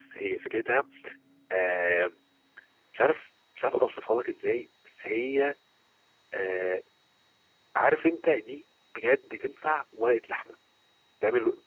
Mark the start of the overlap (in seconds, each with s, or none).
none